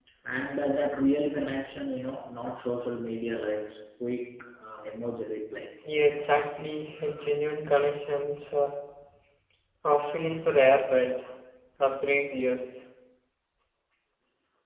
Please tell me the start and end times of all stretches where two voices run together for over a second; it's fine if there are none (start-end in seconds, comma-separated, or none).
none